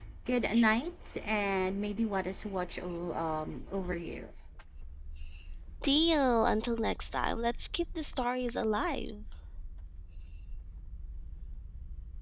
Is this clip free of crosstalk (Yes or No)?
Yes